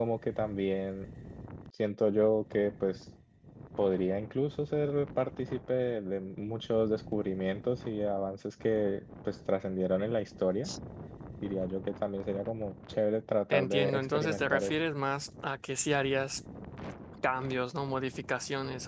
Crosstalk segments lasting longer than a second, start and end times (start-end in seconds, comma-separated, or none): 13.5-14.7